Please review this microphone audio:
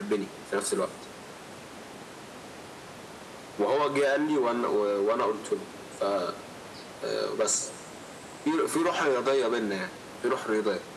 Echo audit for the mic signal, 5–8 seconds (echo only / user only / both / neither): echo only